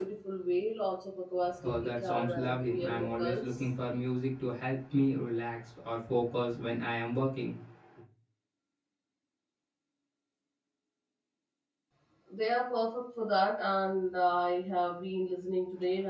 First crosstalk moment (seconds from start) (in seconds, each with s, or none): 1.6 s